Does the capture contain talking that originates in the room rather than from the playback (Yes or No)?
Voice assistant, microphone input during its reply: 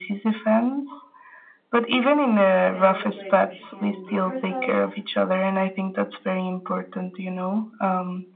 Yes